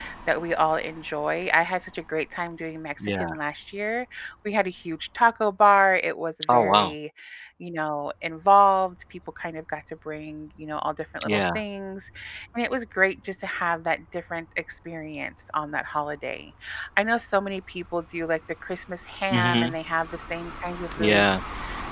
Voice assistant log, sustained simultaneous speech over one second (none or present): none